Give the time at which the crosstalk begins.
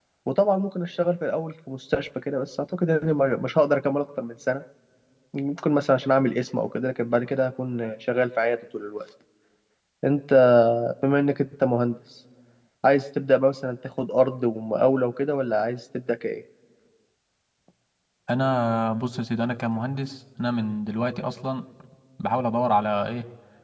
none

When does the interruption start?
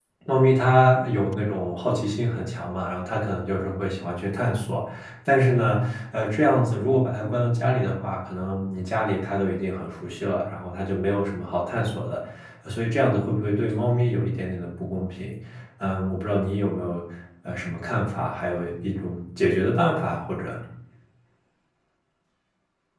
none

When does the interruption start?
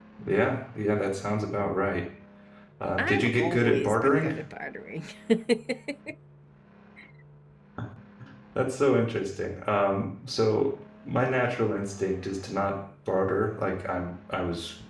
3.0 s

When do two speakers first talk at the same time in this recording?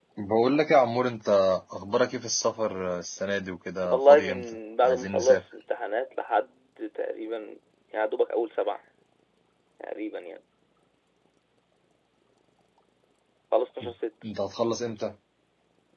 3.8 s

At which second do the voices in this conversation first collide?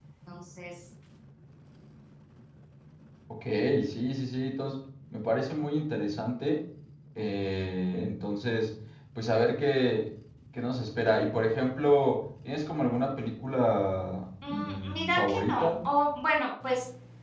14.4 s

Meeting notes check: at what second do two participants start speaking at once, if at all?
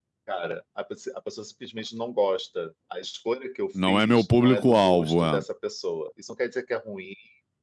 3.7 s

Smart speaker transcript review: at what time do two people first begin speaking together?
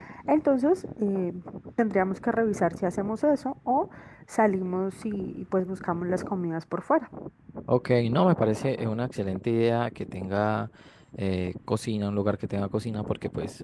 none

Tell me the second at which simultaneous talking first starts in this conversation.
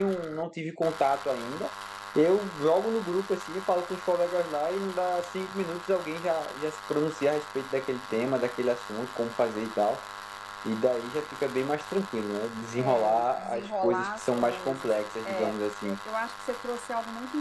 12.7 s

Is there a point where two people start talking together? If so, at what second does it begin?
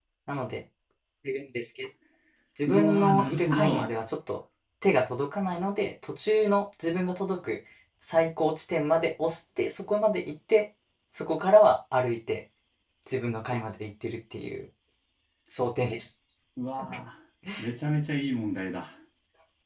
2.7 s

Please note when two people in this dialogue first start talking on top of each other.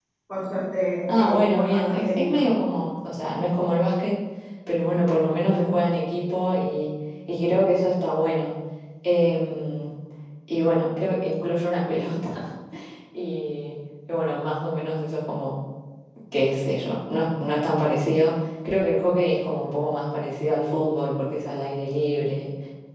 1.1 s

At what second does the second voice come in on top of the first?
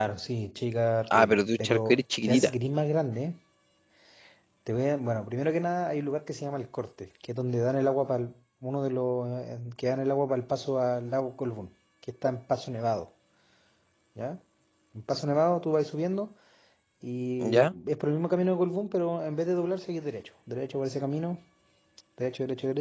1.1 s

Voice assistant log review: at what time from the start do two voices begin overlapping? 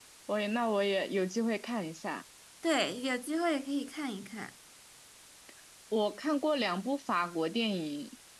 none

